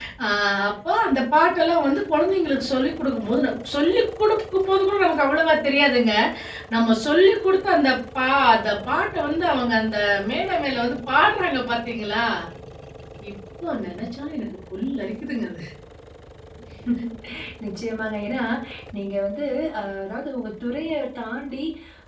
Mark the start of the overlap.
none

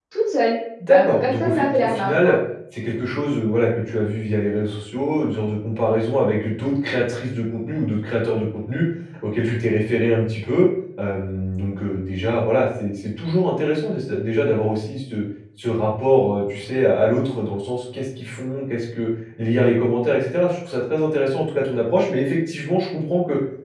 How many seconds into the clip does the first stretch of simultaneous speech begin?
0.9 s

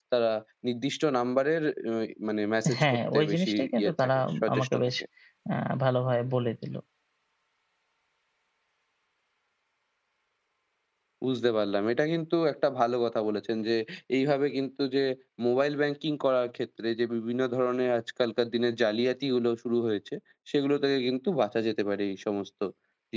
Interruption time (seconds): 2.6 s

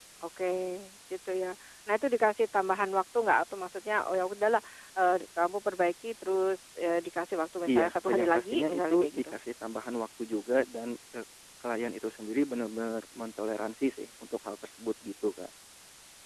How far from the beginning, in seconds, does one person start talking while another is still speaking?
7.7 s

